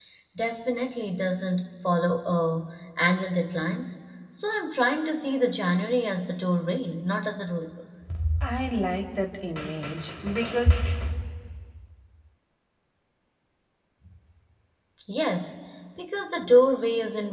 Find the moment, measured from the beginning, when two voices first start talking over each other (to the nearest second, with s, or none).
none